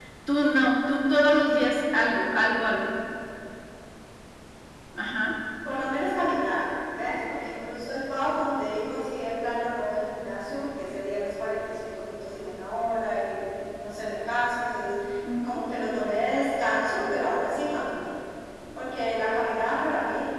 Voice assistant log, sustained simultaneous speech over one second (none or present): none